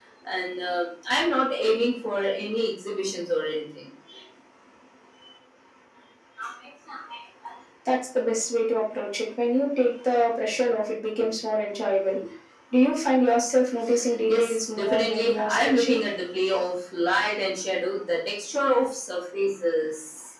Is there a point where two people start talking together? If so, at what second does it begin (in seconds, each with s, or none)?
14.3 s